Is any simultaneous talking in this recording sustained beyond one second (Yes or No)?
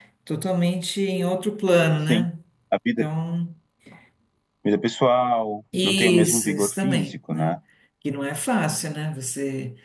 Yes